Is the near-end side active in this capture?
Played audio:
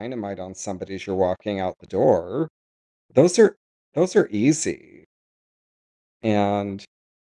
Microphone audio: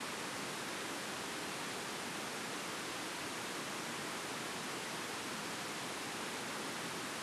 No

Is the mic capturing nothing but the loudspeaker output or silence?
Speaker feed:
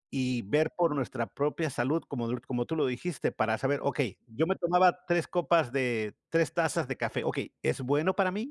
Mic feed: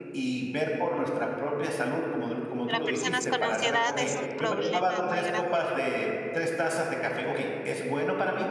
No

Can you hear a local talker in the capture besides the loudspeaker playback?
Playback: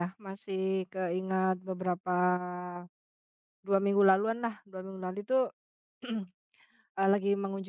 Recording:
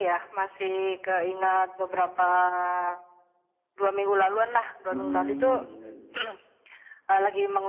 Yes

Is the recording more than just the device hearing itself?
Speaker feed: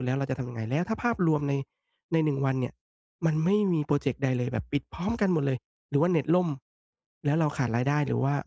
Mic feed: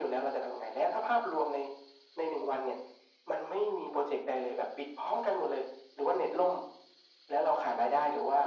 No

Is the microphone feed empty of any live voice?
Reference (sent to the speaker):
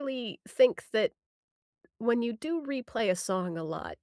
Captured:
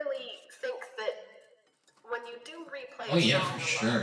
No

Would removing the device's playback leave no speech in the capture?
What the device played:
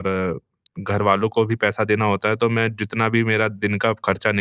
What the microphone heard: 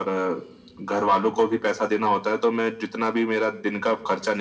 Yes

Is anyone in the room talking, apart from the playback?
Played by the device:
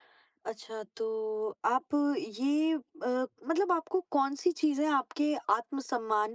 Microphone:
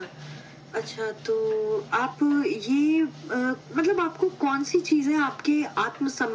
No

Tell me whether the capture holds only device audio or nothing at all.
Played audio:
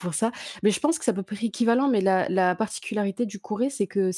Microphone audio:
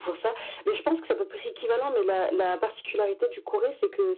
Yes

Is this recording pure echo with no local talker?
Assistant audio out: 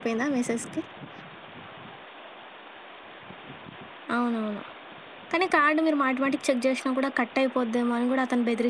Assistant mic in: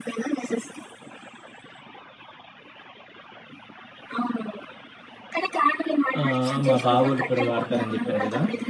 No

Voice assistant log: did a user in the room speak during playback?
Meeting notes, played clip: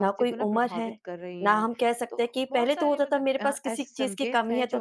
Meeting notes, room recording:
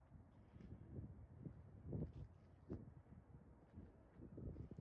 No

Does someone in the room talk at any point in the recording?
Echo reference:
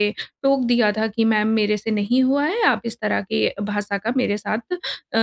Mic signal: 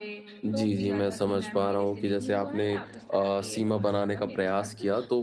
Yes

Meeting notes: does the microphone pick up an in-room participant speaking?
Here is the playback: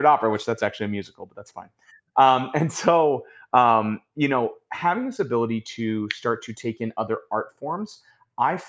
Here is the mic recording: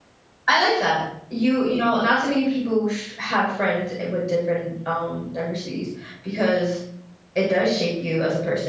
Yes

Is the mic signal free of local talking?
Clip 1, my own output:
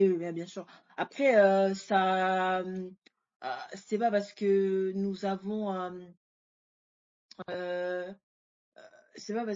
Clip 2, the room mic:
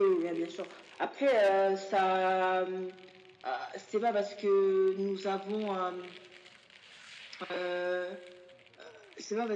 Yes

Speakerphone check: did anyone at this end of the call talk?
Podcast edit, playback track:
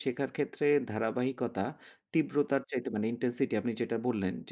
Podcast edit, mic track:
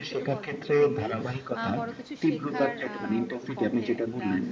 Yes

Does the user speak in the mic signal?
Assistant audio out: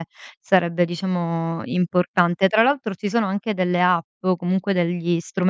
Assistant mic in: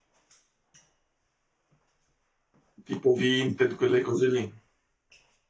Yes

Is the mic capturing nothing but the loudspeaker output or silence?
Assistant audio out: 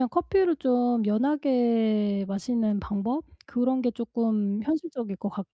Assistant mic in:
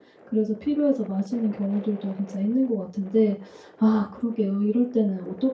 No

